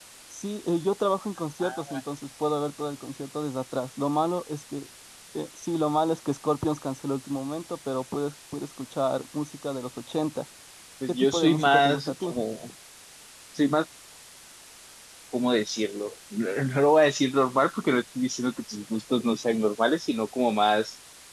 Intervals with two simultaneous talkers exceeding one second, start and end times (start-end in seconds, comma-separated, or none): 11.1-12.3